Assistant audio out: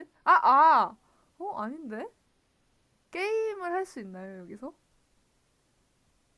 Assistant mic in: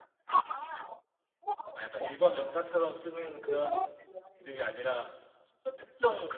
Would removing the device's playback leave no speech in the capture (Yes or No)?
No